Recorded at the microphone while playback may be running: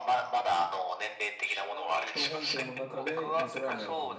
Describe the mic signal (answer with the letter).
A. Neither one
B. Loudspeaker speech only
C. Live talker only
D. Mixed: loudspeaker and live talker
D